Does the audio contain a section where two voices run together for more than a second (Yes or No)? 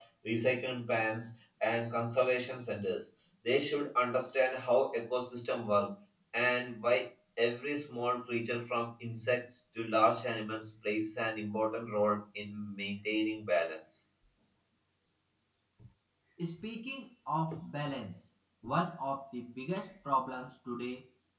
No